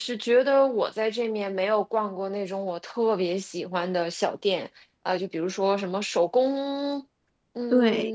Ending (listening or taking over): listening